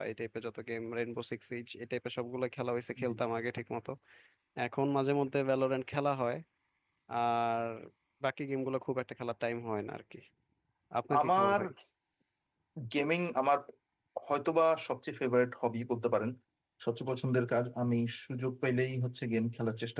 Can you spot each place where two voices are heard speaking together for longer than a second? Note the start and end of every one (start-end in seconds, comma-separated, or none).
none